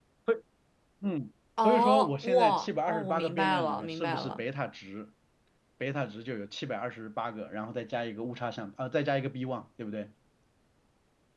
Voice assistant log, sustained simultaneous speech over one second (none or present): present